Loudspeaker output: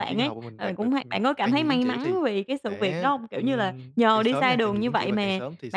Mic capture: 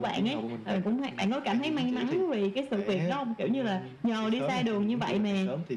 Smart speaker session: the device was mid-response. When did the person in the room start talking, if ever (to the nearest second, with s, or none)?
none